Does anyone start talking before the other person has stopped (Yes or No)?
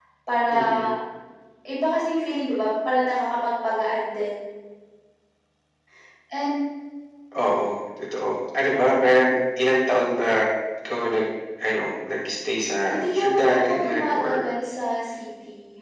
Yes